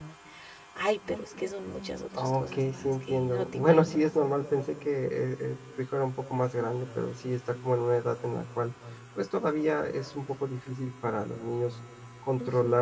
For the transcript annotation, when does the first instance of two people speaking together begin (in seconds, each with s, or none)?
2.1 s